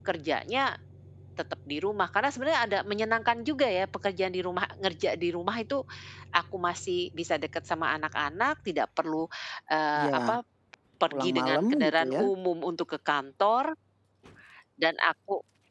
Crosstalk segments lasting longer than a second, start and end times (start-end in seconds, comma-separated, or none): 11.1-12.3